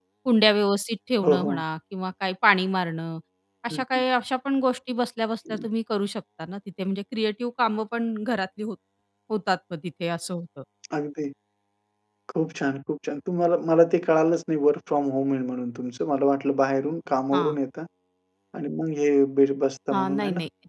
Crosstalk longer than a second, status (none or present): none